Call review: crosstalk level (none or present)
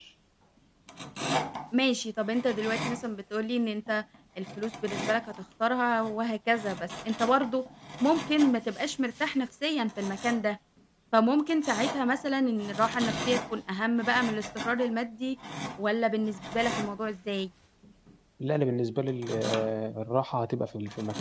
none